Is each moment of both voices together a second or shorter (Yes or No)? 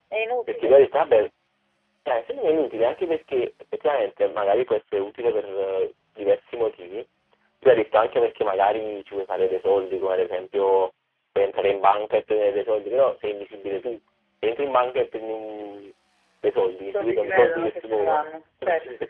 No